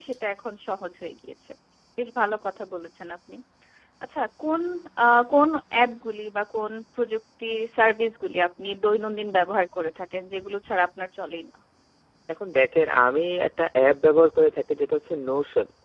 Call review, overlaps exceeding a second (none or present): none